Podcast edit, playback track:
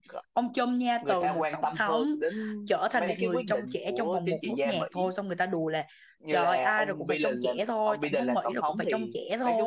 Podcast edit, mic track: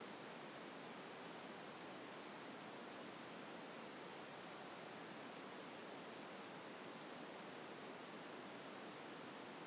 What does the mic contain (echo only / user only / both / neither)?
neither